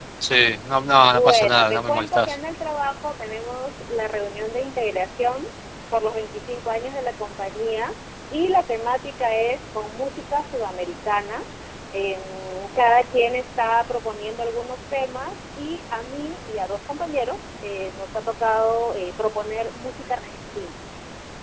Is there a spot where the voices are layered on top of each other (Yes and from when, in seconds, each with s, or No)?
Yes, from 1.0 s